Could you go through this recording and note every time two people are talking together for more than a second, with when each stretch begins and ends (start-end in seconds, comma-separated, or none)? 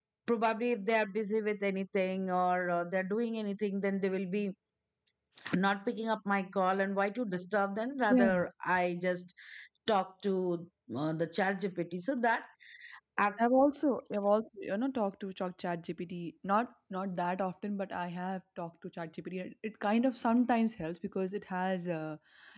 none